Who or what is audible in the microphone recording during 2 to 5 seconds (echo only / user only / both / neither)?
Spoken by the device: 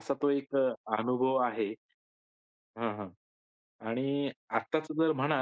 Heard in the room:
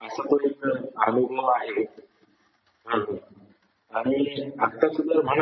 echo only